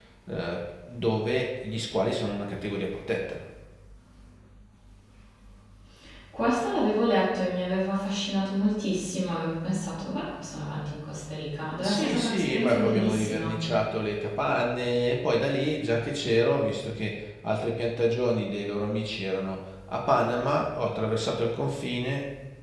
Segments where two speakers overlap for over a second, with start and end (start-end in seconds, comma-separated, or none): 11.8-13.5